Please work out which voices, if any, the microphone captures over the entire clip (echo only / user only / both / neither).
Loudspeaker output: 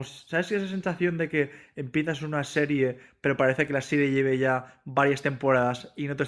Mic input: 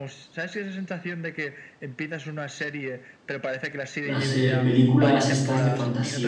both